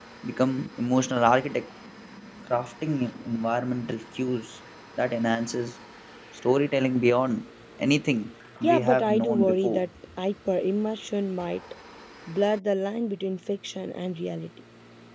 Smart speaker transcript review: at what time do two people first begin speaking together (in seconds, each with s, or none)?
8.6 s